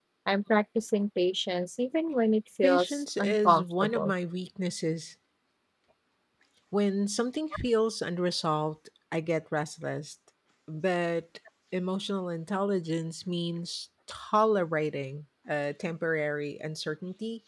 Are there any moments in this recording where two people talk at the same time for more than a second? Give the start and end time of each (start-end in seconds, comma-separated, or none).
2.6-4.1